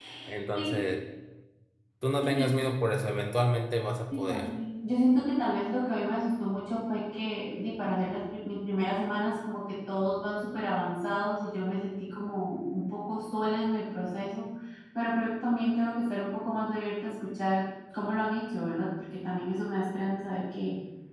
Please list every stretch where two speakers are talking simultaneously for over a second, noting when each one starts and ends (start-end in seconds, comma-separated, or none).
none